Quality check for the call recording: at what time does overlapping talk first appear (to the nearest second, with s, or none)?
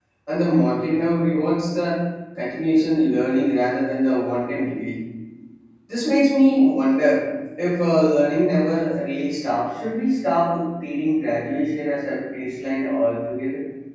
none